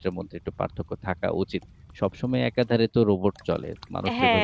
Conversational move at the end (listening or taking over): taking over